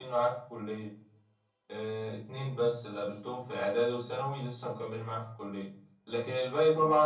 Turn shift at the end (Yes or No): No